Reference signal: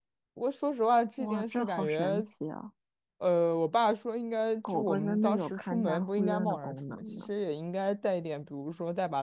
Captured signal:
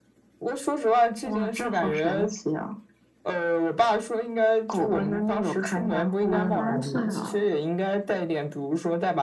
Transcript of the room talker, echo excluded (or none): 啊，三岁了